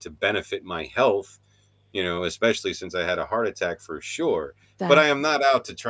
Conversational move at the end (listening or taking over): listening